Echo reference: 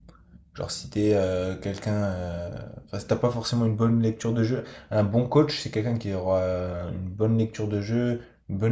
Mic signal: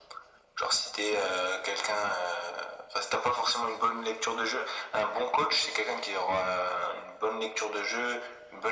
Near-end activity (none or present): none